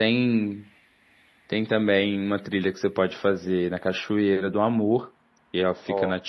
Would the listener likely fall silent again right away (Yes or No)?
Yes